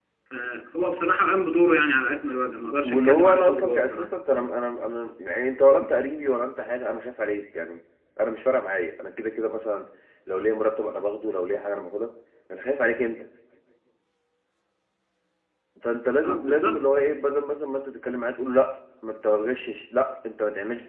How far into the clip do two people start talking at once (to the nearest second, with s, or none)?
3 s